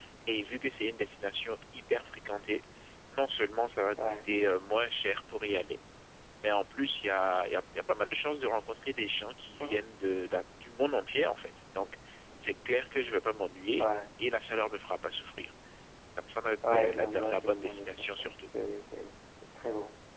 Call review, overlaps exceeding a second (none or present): present